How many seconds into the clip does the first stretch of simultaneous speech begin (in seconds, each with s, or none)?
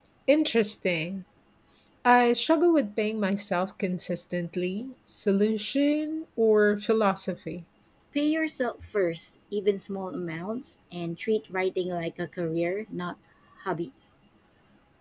none